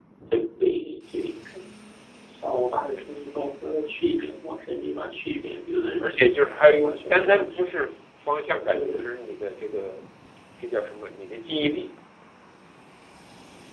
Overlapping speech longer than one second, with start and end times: 6.0-7.6

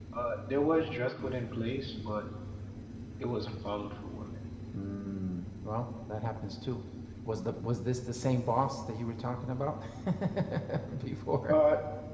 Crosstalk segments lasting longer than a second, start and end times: none

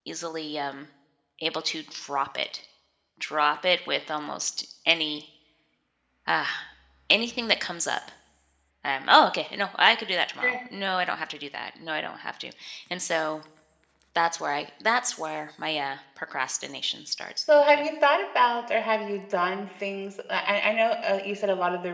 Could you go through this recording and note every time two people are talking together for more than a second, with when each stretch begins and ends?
none

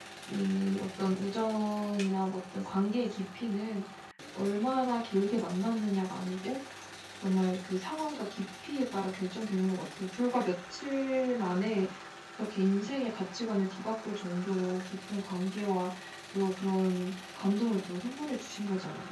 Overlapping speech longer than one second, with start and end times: none

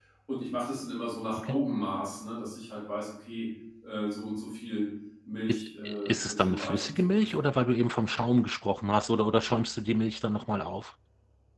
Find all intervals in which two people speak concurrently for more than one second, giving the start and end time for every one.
6.0-7.4

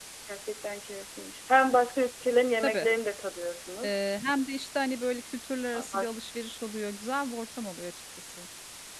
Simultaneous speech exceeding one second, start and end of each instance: none

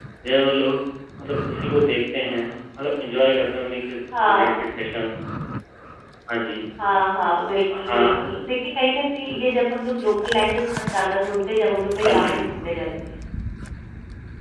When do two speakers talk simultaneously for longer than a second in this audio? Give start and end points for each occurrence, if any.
none

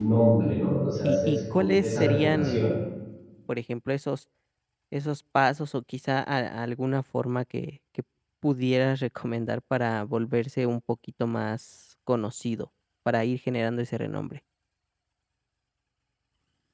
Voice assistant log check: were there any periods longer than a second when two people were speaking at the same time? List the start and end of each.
1.0-2.6

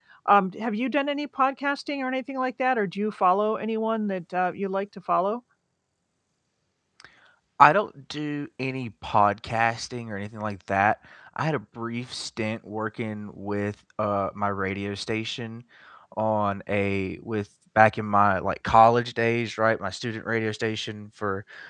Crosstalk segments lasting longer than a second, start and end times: none

